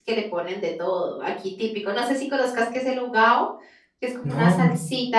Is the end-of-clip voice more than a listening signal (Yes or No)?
No